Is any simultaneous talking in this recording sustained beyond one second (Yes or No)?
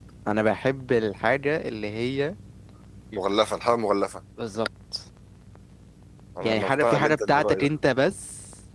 Yes